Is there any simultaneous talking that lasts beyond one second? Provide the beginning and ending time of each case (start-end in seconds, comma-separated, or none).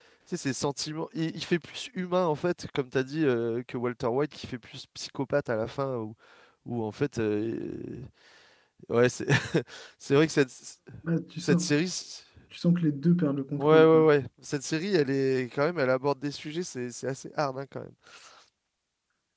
none